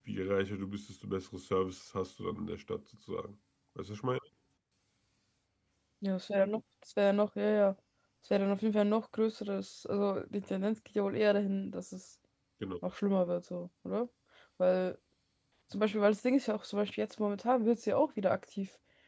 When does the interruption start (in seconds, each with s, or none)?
none